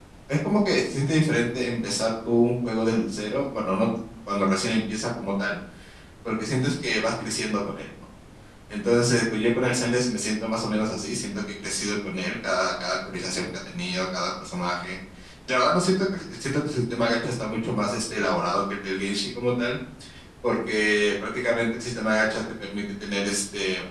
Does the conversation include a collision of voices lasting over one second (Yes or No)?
No